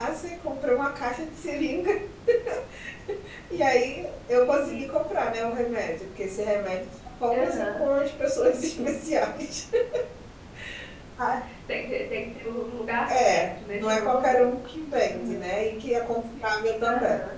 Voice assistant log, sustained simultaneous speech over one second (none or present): present